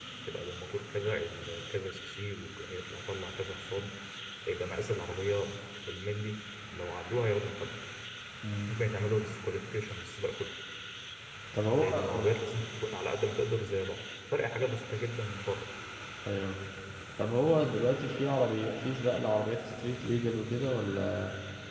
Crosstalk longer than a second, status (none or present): none